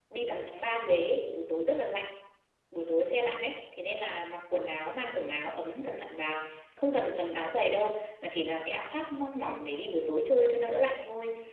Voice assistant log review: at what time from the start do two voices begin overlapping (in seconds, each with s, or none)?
none